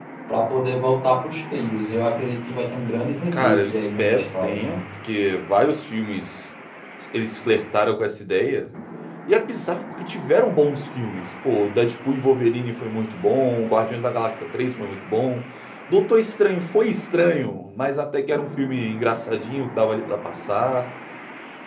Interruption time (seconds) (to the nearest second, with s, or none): 3 s